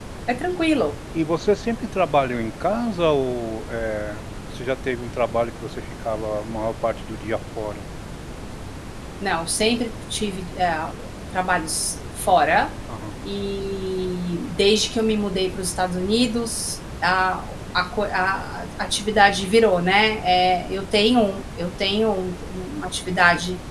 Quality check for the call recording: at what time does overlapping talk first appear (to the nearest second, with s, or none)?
none